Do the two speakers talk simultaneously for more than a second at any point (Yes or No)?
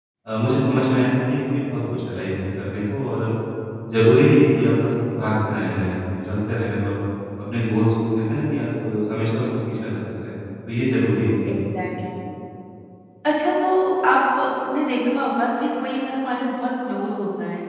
No